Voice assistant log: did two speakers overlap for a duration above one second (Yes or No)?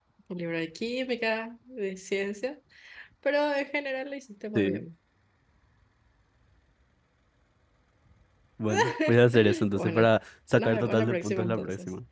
Yes